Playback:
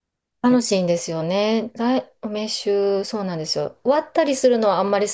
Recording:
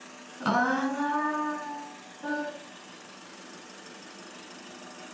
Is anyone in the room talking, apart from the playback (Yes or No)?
Yes